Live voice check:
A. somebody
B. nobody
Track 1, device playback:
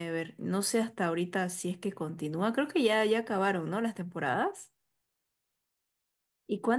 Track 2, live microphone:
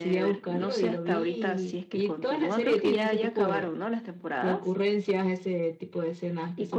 A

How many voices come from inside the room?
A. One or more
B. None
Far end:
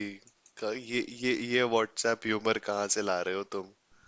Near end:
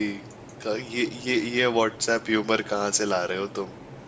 B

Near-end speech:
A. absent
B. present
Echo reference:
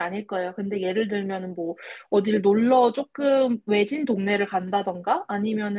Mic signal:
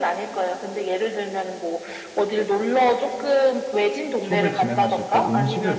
B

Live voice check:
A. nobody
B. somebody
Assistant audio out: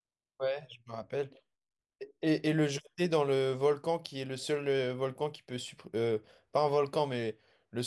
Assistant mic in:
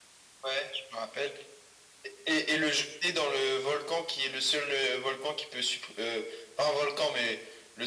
A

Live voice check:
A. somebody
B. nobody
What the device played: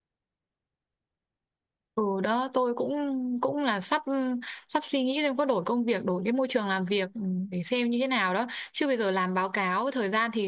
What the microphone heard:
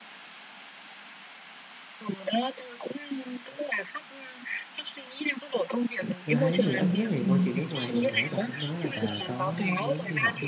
A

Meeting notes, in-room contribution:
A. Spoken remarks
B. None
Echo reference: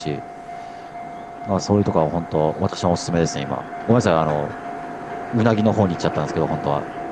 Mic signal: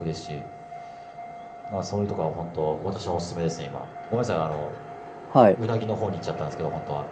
A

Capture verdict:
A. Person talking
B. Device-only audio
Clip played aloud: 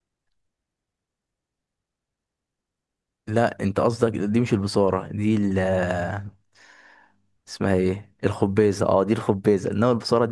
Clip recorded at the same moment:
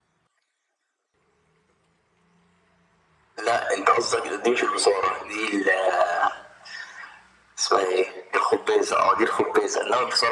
B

